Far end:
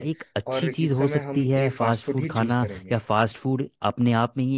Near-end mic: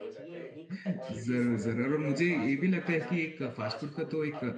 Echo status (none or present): present